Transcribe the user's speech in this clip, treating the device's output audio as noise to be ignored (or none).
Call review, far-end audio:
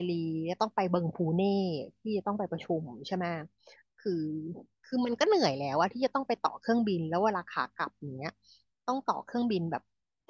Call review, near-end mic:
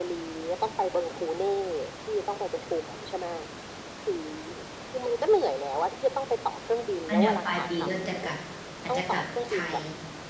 ตอนเดี๋ยวปลายปีก็จะกลับ อาจจะกลับไทย